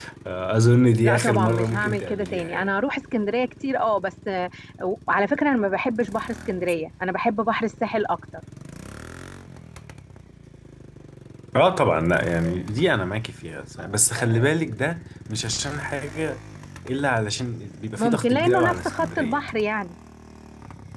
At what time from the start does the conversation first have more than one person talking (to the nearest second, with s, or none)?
1 s